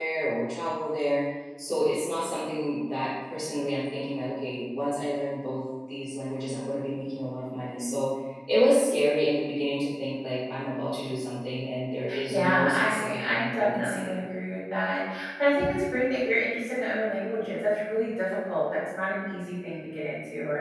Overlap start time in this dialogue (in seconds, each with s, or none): 12.1 s